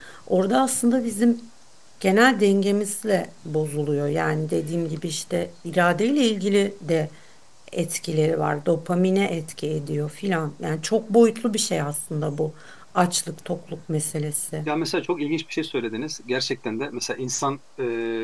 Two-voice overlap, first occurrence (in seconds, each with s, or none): none